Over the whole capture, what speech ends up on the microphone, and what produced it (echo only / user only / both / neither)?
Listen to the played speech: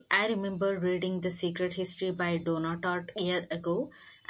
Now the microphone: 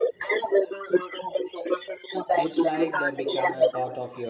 both